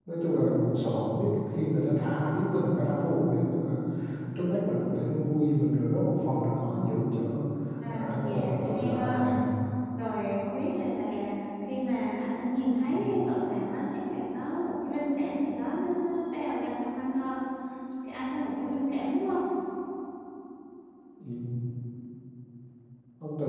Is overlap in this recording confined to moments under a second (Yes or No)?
No